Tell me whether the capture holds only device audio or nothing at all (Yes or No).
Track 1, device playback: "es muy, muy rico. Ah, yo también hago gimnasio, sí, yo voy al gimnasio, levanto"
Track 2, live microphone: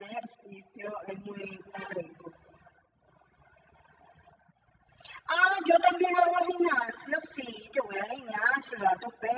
Yes